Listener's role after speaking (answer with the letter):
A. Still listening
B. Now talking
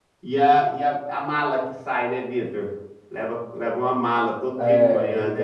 B